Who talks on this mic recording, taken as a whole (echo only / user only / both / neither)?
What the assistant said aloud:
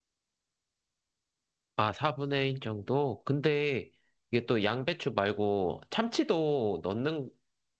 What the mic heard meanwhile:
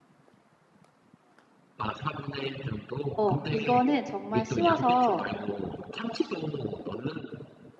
both